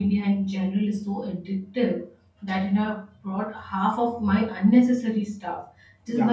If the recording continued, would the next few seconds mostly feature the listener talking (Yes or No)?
No